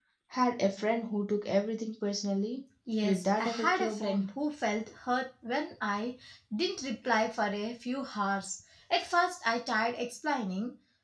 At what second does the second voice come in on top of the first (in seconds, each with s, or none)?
2.9 s